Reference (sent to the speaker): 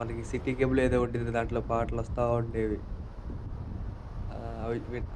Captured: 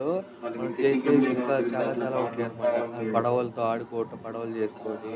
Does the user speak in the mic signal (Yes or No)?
Yes